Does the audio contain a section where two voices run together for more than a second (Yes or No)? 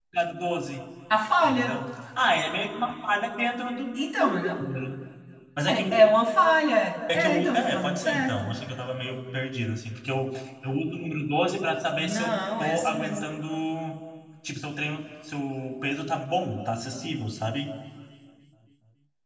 Yes